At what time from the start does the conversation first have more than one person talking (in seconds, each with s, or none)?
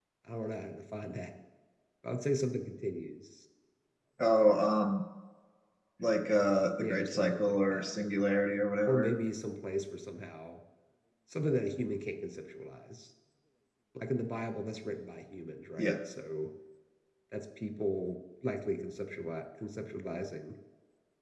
6.8 s